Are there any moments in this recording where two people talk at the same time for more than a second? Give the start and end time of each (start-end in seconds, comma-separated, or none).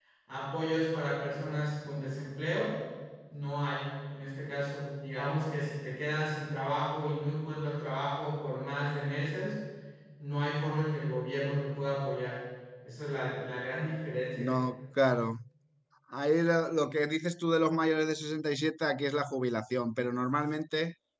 none